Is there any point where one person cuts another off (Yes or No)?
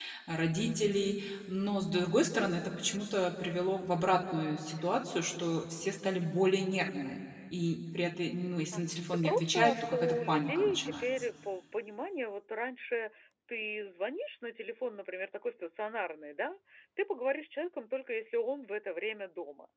Yes